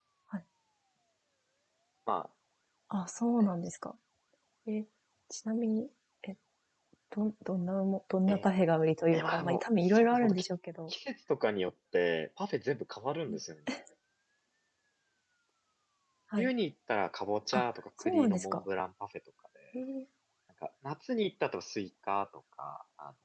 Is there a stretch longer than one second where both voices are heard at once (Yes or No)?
Yes